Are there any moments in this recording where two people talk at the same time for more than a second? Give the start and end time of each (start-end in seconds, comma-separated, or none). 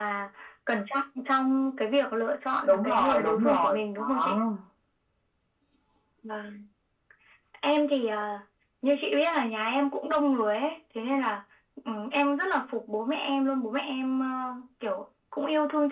2.7-4.4